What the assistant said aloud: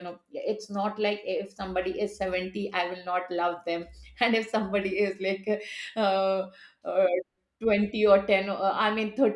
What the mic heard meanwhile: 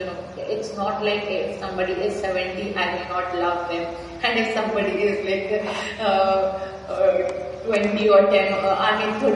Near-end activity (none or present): none